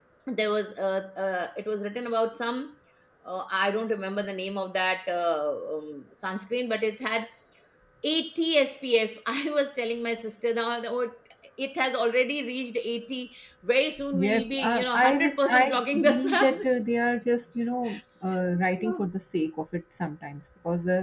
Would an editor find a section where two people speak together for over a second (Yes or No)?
Yes